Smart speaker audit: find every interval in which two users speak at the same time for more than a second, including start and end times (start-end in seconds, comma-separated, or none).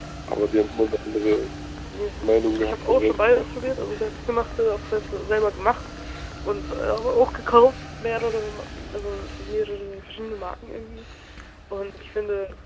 2.2-3.8